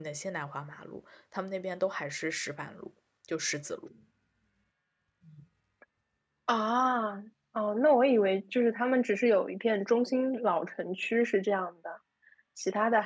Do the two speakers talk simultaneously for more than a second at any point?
No

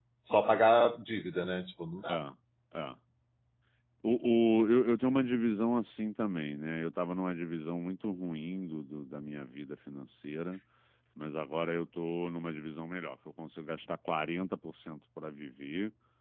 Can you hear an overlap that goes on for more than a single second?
No

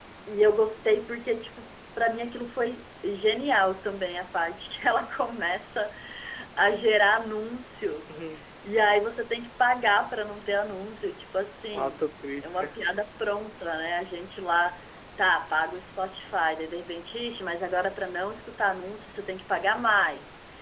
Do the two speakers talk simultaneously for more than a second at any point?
No

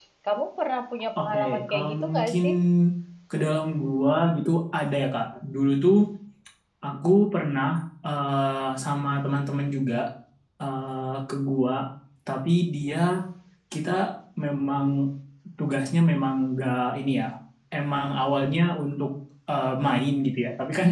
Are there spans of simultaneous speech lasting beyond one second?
Yes, from 1.2 s

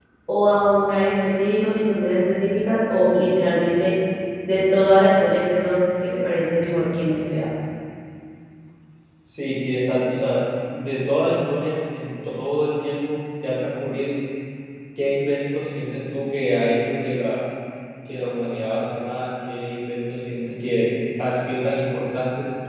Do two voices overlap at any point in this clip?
No

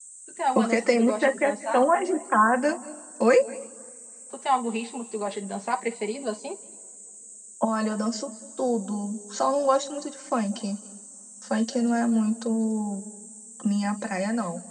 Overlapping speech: Yes, from 0.6 s

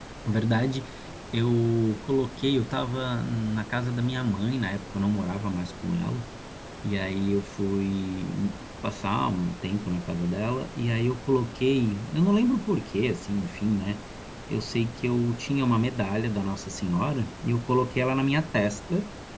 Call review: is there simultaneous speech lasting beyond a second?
No

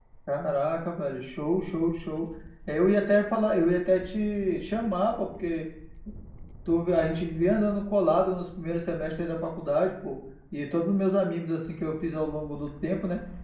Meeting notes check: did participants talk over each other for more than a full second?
No

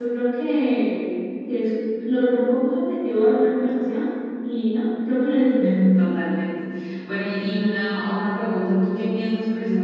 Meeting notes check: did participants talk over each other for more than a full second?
No

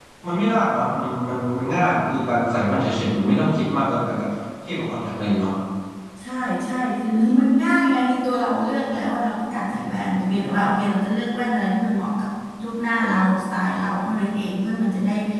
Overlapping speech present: No

